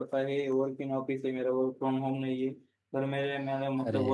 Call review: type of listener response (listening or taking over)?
listening